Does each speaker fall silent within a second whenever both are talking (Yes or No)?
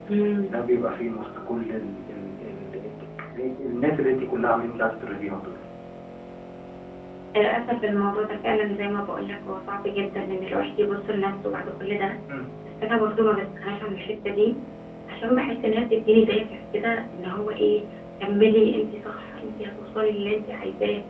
Yes